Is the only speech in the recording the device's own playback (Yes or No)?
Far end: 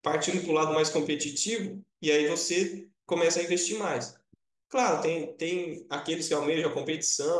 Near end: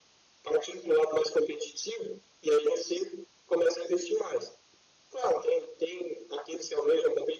Yes